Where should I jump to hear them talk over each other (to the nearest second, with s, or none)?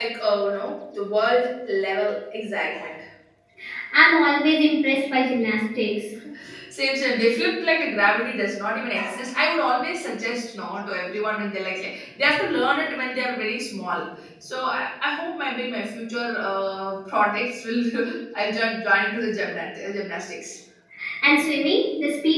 none